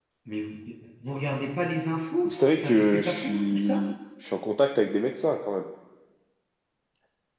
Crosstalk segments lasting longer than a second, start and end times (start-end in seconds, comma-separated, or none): 2.2-3.8